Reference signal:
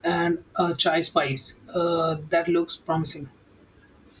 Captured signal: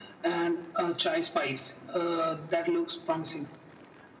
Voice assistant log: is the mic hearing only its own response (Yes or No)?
Yes